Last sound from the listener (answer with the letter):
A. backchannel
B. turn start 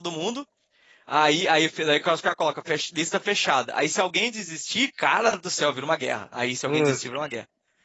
A